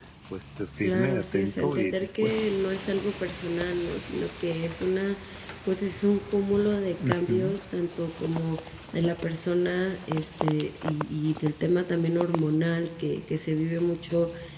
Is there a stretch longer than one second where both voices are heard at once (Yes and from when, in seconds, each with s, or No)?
Yes, from 0.8 s